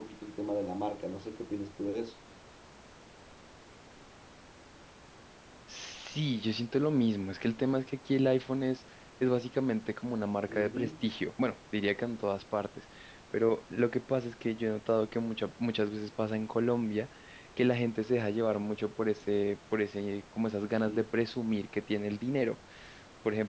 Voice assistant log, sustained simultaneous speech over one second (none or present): none